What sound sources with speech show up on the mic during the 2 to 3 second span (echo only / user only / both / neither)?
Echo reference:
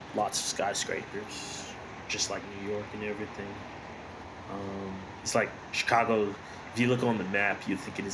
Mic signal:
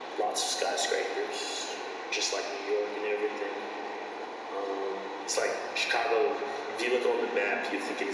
echo only